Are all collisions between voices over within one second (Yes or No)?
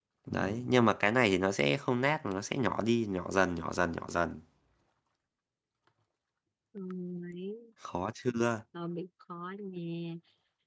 Yes